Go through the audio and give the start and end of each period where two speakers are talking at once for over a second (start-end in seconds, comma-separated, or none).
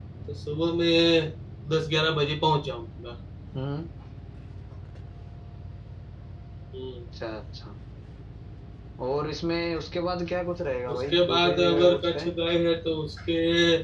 10.9-12.3